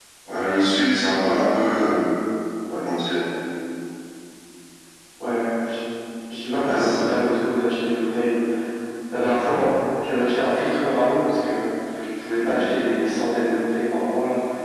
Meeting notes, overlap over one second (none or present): none